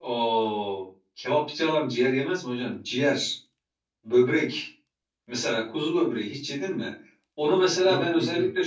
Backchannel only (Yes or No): Yes